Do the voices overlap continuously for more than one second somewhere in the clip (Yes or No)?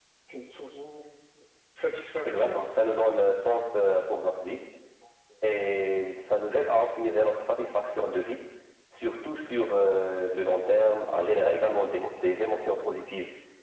No